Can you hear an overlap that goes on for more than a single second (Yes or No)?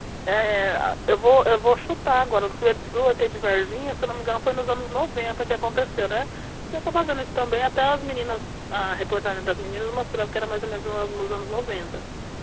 No